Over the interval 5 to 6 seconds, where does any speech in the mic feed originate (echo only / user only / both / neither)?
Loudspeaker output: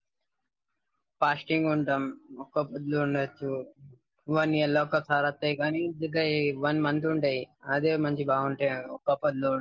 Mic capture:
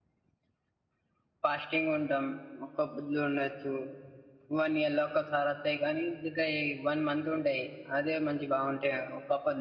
echo only